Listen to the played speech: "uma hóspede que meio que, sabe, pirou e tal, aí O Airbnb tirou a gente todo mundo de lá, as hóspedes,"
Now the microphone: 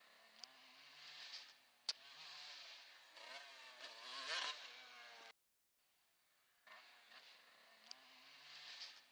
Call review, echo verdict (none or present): none